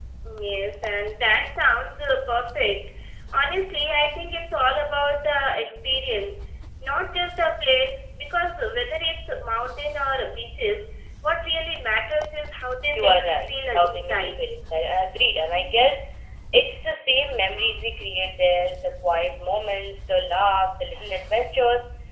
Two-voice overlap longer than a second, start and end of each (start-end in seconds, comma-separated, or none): 12.9-14.4